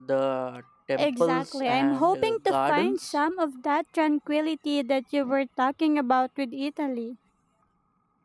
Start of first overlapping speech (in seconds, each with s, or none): 1.0 s